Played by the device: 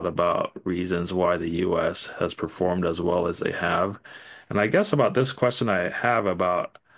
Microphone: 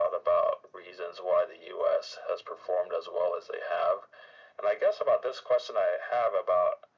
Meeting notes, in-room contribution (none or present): none